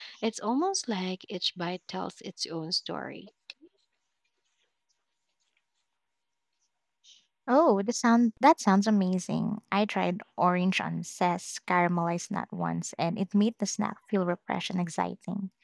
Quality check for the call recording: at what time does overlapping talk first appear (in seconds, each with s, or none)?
none